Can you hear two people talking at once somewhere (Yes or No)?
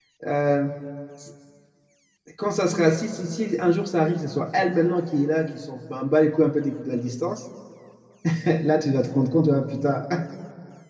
No